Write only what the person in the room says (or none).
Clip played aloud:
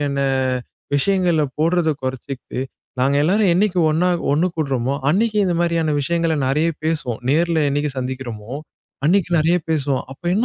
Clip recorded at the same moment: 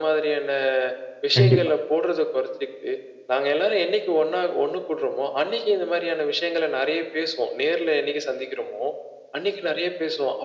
கண்டிப்பா.